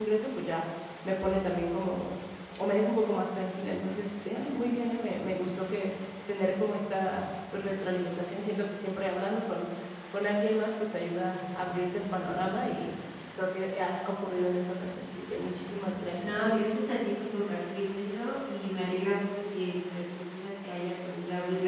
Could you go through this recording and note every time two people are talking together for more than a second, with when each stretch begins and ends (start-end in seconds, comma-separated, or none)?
none